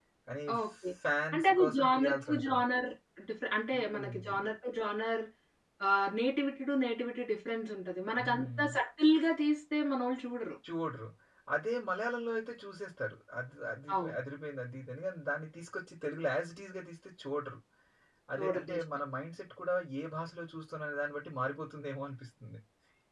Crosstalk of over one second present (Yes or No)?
Yes